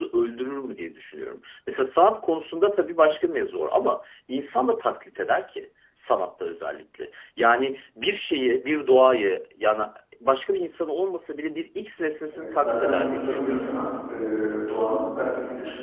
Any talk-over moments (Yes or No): Yes